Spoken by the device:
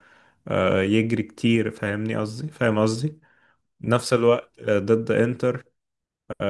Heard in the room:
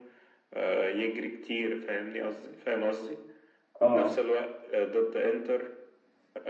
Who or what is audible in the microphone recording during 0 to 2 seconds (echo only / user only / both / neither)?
echo only